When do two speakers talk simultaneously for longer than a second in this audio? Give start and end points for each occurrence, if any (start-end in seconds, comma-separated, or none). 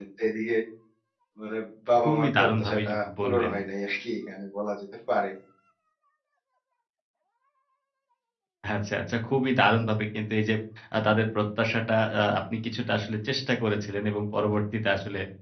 2.0-3.5